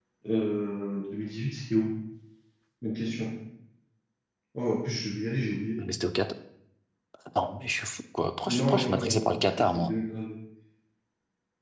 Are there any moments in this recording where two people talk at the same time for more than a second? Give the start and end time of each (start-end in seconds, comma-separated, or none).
8.6-9.9